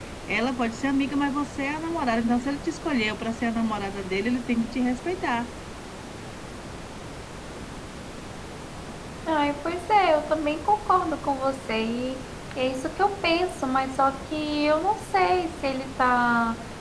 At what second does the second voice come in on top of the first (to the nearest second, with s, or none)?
none